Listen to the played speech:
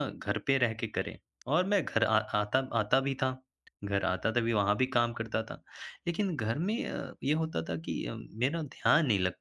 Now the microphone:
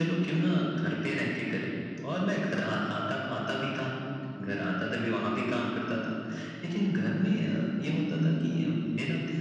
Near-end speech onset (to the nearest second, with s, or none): none